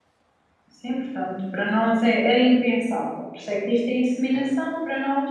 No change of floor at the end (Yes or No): Yes